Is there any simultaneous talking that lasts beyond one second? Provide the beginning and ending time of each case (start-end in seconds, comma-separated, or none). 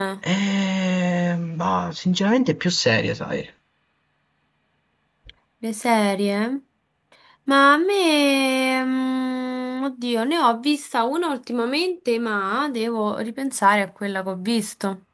none